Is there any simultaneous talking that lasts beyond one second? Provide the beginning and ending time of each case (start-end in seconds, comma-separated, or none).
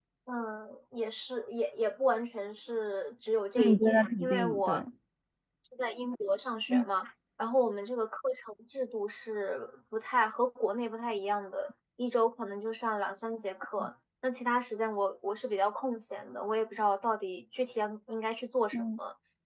3.6-4.8